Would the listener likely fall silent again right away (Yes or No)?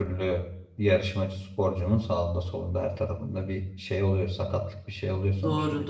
No